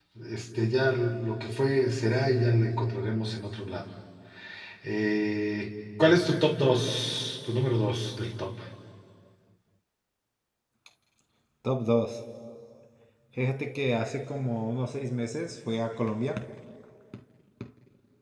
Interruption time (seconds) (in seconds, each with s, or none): none